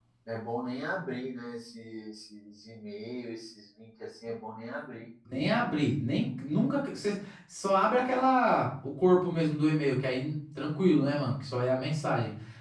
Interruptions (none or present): none